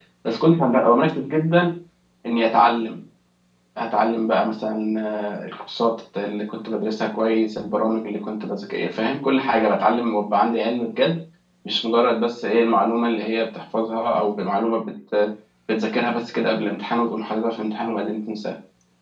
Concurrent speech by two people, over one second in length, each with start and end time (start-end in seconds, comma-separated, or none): none